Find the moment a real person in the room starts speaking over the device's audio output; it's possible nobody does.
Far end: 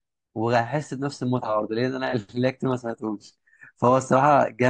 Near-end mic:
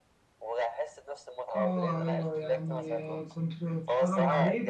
1.6 s

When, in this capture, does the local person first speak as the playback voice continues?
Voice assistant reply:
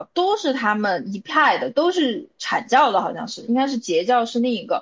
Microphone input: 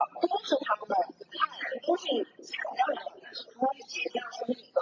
none

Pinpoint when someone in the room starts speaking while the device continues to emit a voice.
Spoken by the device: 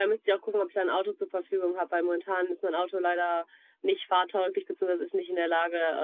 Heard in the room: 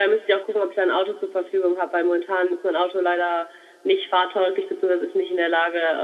none

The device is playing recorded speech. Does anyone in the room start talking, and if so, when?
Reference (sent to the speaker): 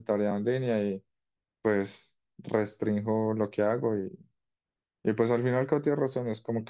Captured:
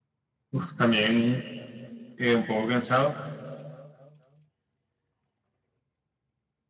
0.5 s

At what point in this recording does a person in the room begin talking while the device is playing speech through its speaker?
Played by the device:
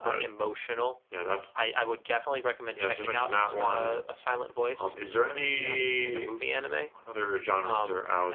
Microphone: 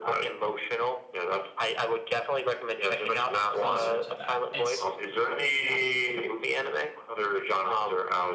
3.5 s

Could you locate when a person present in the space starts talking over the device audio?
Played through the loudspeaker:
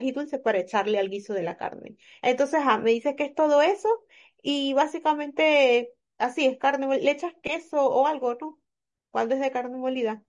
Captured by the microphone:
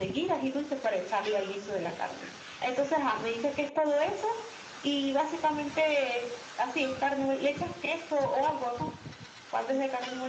none

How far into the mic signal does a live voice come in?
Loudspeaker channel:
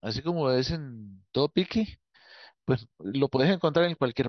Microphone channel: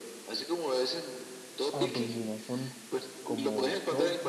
1.7 s

